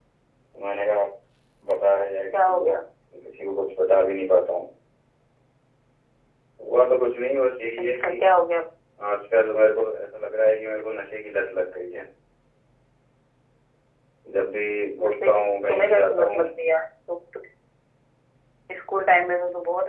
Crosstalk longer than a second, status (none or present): present